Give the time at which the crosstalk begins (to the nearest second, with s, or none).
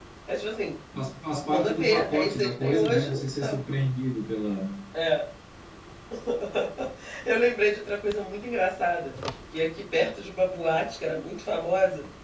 1 s